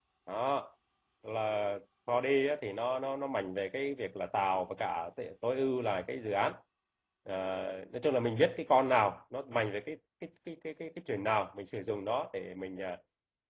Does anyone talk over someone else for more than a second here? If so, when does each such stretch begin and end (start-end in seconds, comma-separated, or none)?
none